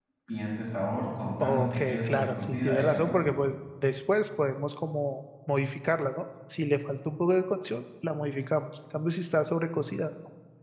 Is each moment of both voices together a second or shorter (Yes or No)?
No